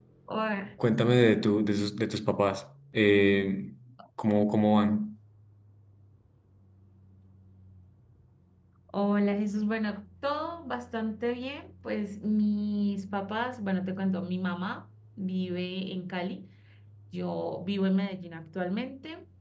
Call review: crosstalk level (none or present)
none